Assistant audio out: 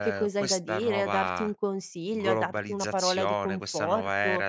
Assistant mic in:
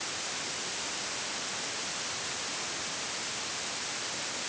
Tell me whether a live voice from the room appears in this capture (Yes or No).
No